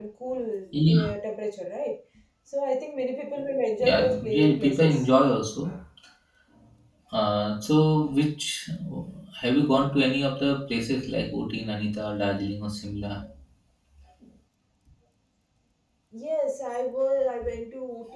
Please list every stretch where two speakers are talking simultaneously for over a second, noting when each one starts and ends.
3.8-5.0

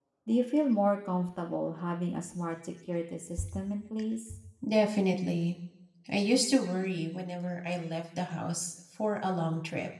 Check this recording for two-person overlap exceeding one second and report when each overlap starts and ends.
none

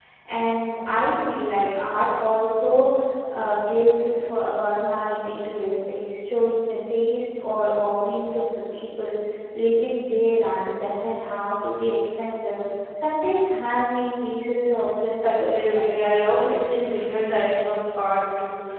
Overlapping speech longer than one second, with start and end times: 15.2-16.5

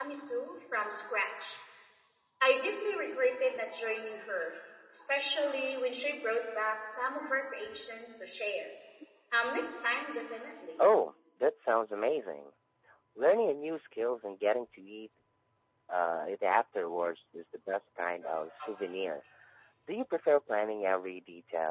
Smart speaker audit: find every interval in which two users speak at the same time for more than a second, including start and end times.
none

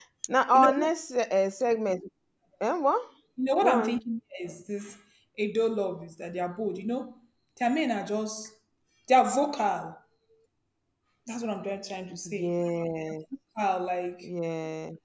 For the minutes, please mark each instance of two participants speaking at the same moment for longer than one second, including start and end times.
none

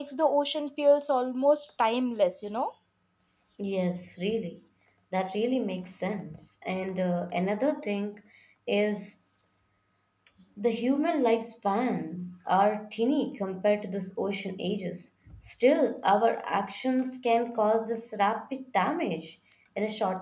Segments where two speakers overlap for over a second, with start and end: none

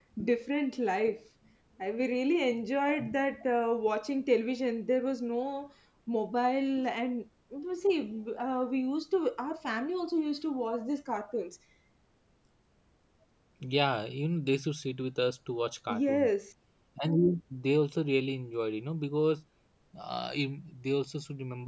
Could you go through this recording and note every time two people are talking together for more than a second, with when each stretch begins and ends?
none

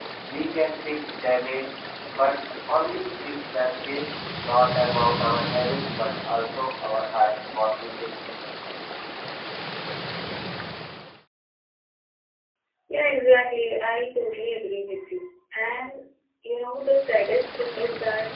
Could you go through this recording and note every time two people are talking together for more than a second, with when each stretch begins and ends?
none

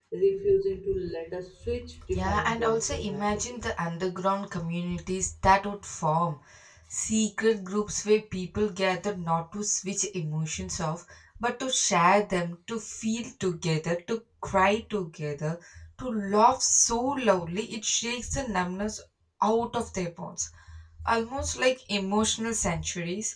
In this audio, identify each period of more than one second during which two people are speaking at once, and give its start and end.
2.1-3.4

